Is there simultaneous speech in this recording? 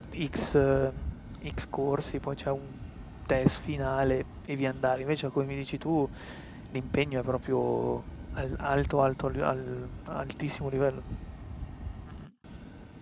No

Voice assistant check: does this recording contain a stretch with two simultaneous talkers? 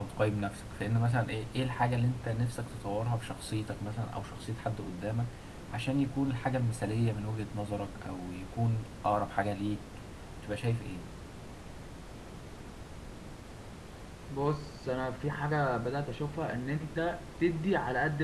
No

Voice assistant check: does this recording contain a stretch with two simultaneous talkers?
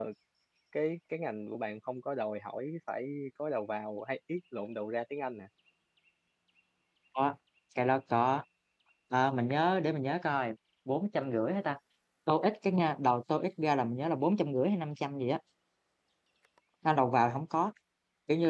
No

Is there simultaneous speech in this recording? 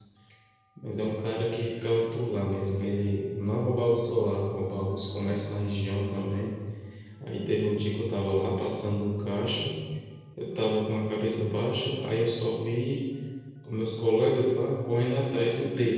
No

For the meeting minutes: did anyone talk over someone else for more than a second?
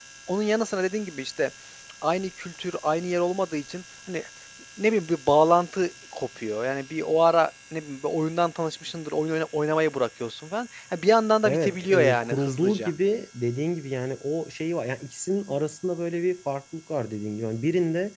Yes, from 11.4 s

